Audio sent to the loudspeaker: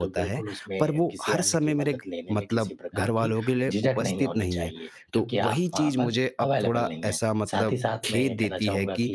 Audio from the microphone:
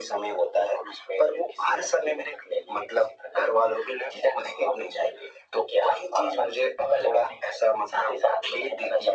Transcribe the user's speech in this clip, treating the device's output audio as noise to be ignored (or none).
none